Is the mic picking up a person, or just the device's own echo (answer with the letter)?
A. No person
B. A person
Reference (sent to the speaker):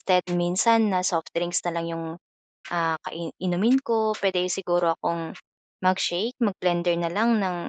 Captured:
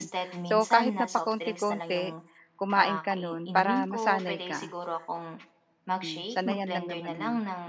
B